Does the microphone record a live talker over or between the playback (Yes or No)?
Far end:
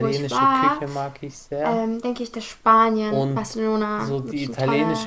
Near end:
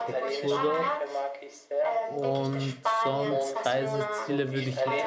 Yes